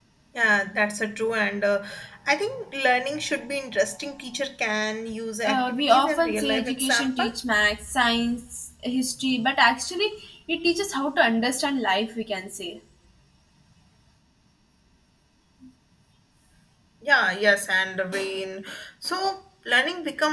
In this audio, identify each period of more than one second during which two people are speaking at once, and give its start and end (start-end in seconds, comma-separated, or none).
5.4-7.3